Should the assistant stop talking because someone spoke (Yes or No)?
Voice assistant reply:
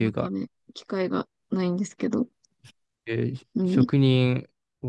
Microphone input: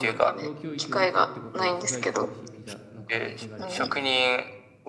Yes